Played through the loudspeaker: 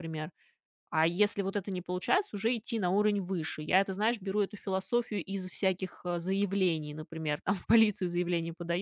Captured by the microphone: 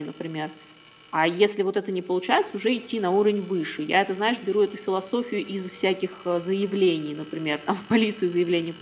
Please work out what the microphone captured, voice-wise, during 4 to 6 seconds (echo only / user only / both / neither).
echo only